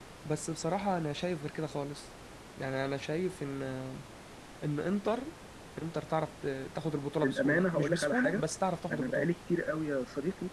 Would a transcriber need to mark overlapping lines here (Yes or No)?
Yes